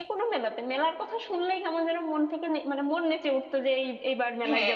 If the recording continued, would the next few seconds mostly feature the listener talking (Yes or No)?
Yes